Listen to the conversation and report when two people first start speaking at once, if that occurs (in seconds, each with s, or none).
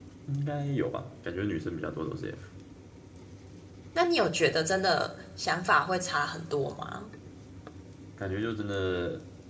none